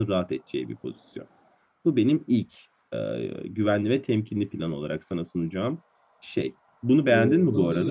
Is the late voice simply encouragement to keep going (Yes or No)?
No